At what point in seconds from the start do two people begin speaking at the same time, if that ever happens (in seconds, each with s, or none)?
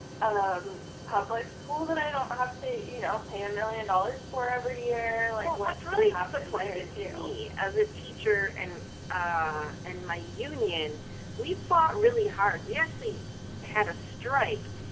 5.4 s